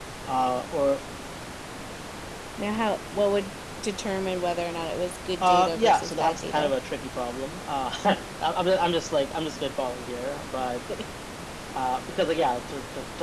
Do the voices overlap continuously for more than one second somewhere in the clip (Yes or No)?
Yes